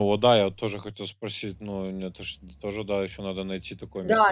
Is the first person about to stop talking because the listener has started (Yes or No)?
Yes